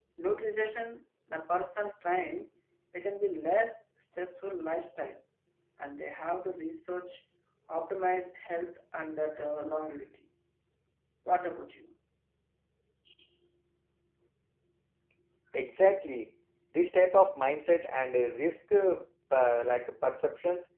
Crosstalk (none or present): none